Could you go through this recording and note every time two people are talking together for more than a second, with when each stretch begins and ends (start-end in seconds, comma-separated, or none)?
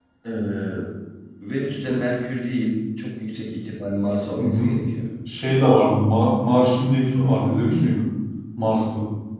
none